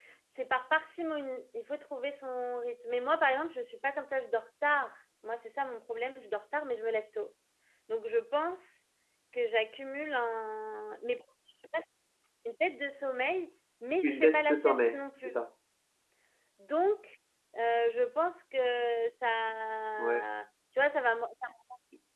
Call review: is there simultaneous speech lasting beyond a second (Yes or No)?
Yes